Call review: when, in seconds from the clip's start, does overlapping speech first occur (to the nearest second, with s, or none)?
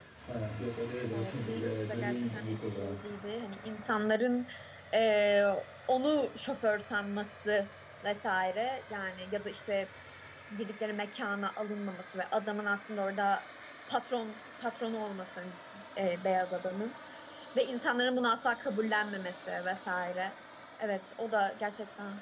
1 s